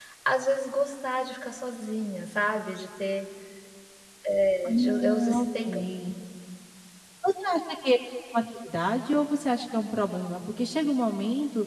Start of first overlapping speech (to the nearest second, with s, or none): 5 s